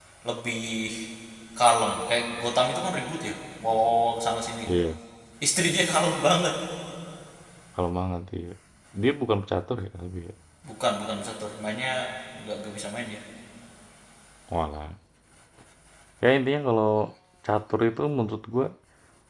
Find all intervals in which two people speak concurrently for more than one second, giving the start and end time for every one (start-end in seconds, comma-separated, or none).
none